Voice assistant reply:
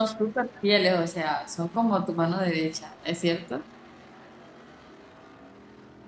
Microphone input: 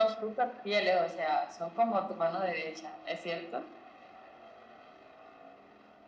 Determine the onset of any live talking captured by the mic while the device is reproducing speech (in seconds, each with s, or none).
none